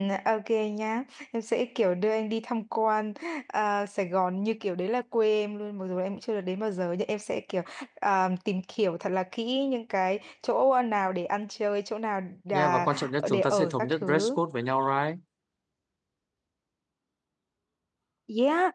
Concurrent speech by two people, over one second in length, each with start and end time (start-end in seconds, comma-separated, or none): 12.5-14.3